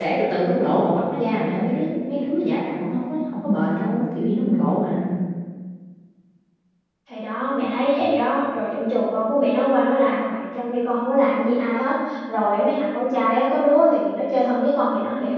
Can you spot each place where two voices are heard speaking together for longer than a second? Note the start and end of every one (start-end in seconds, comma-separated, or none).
none